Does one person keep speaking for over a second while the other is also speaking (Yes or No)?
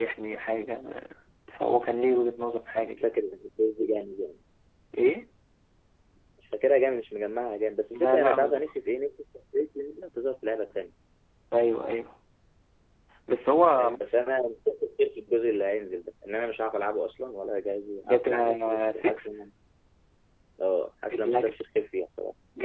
Yes